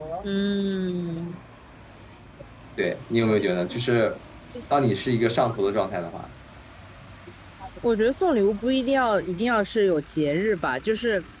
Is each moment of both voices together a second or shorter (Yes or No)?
Yes